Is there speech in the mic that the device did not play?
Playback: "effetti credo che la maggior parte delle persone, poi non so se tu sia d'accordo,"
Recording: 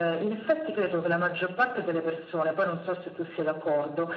No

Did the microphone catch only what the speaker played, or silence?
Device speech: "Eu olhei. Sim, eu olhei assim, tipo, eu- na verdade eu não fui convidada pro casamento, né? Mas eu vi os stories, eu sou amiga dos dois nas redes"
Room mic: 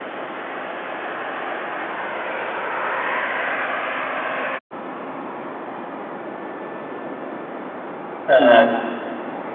No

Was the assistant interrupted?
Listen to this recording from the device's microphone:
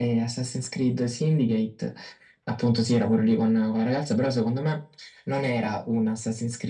No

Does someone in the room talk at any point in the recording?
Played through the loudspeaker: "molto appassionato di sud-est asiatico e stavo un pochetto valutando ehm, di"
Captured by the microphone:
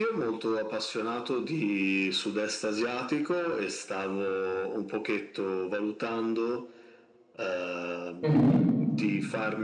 Yes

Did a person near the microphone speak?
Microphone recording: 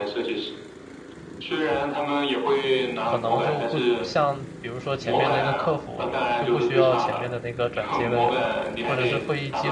Yes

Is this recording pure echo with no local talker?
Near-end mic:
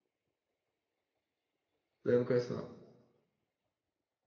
No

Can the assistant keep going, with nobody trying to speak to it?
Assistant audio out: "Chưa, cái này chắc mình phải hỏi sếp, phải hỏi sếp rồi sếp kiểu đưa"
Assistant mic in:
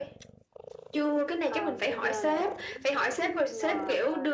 No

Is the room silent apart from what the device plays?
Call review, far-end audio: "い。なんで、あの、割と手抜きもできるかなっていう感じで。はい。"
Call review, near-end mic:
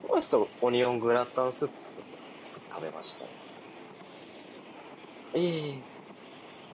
No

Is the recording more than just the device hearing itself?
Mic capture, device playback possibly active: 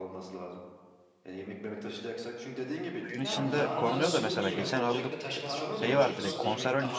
Yes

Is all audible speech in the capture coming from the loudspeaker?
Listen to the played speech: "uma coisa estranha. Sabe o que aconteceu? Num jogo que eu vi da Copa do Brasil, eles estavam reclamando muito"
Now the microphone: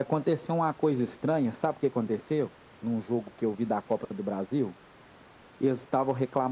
Yes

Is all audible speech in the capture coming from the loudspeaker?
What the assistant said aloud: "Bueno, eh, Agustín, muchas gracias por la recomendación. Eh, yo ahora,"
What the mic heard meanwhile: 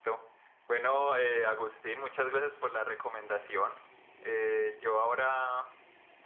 Yes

